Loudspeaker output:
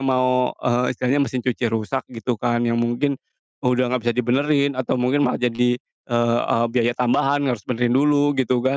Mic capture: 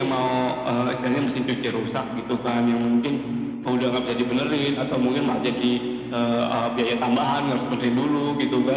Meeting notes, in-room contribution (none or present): none